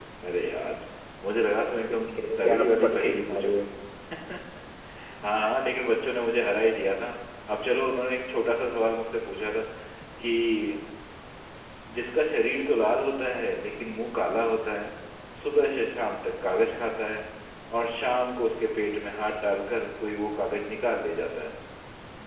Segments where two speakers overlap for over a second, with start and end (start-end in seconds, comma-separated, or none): 1.9-3.6